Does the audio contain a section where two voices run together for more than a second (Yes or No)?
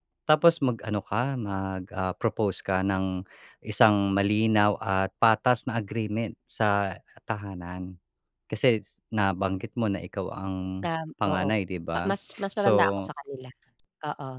No